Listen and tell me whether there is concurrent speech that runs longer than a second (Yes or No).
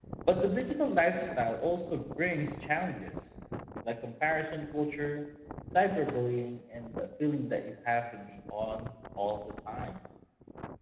No